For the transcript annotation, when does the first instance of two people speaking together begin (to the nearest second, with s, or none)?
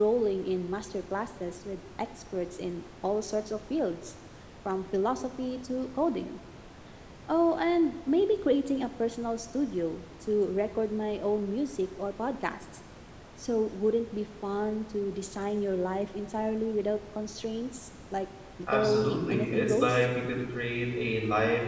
19 s